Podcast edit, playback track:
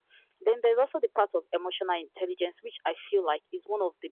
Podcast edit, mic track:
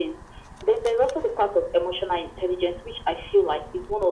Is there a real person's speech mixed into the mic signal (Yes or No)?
No